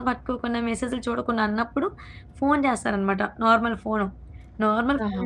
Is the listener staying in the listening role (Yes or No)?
Yes